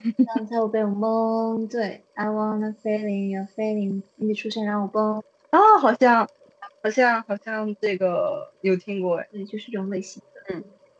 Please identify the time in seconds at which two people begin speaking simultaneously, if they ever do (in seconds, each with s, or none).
none